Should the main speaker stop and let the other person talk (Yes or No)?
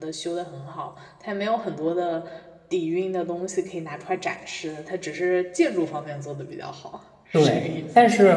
Yes